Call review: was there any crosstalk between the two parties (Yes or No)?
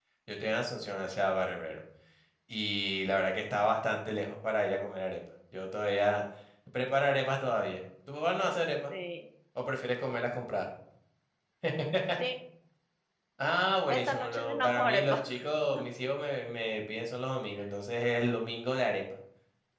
Yes